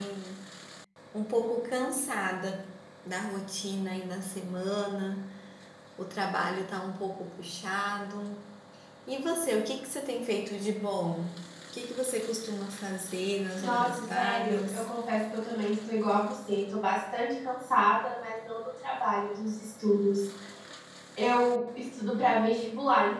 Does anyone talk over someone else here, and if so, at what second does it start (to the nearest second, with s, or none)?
14 s